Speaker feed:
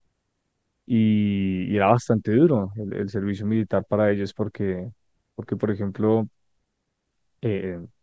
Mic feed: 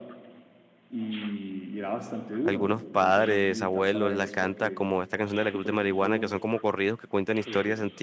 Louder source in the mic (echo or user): user